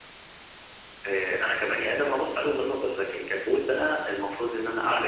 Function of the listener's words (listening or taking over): listening